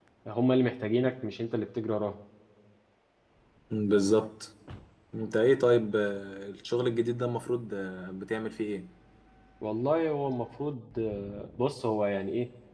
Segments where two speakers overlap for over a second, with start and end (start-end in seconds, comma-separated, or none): none